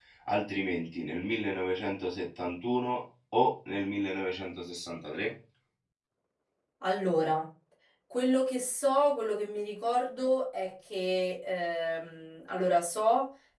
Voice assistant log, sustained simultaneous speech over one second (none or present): none